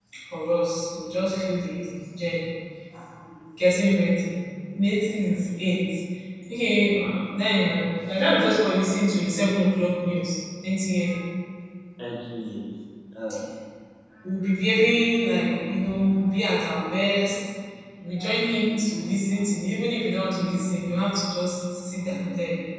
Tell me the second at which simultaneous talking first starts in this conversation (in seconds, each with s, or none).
none